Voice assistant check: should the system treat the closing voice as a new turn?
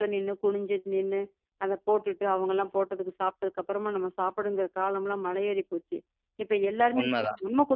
No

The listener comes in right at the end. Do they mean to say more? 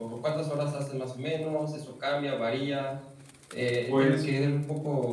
No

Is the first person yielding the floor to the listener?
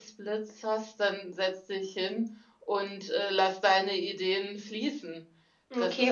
Yes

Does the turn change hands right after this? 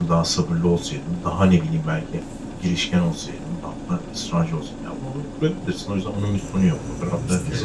No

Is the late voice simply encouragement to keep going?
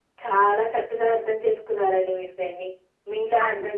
Yes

